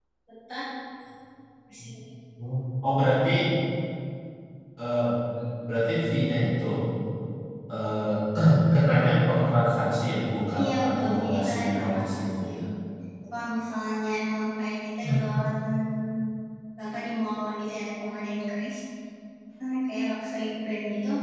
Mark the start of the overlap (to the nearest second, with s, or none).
11 s